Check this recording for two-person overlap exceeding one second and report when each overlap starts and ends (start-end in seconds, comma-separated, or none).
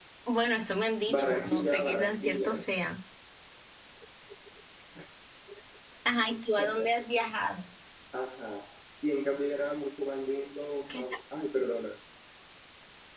1.1-2.6